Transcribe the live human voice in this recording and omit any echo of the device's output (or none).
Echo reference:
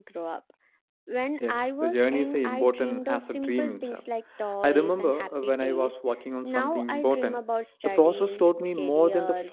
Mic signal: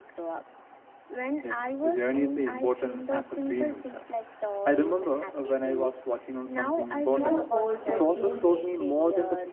too old or too late.